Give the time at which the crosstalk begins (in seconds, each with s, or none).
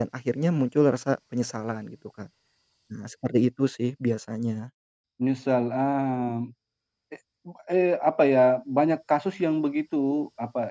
none